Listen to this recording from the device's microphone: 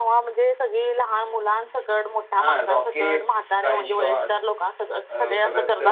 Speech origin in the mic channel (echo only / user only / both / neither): both